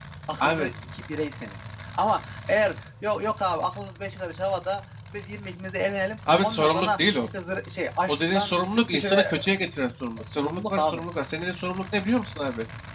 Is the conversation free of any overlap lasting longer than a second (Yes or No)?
No